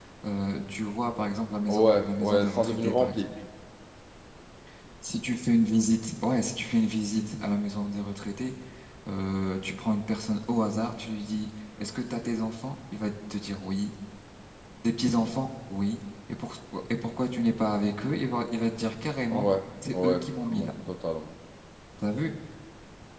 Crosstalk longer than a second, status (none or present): present